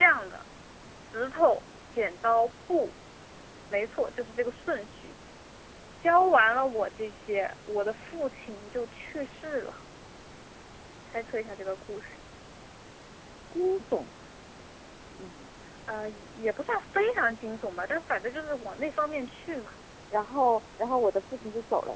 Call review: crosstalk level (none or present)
none